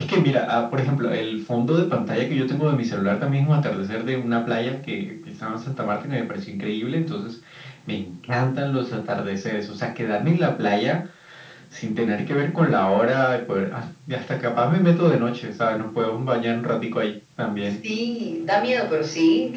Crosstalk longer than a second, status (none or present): none